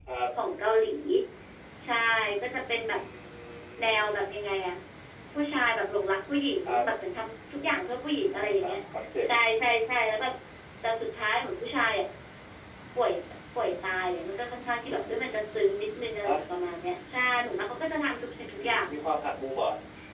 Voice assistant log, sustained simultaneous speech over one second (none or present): none